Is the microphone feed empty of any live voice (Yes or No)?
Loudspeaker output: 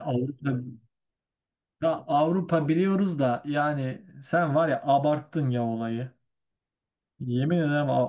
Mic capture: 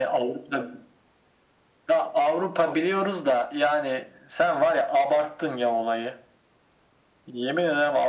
Yes